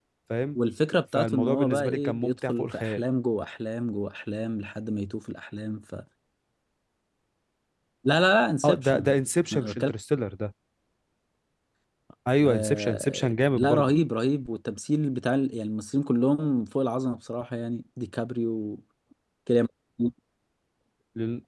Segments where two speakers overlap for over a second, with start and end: 1.1-3.0, 12.5-13.9

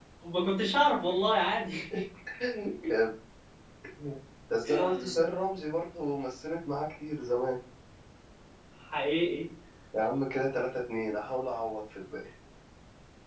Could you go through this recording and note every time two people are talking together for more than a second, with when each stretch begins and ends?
none

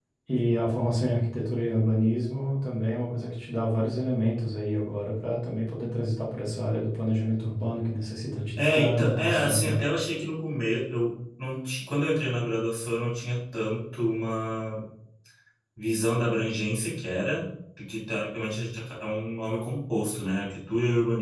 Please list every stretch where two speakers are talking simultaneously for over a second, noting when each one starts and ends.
8.6-9.8

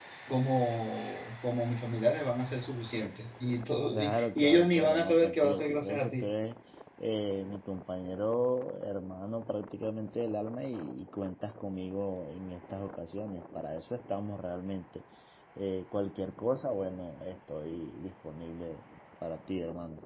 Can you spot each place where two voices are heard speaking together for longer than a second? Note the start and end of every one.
3.9-6.3

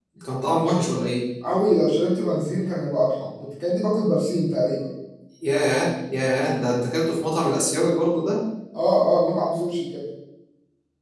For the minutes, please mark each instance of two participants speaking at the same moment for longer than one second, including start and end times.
none

